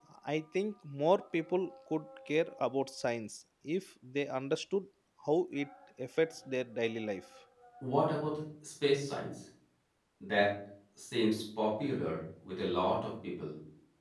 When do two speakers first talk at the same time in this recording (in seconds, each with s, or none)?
none